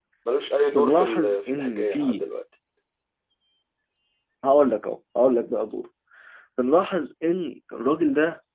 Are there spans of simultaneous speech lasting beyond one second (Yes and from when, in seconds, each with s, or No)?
Yes, from 0.7 s